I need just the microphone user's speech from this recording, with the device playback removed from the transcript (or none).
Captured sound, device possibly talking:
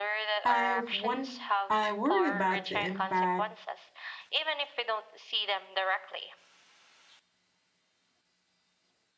I one I worry about the impact